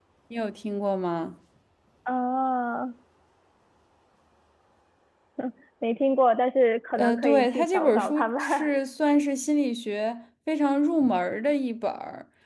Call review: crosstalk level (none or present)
present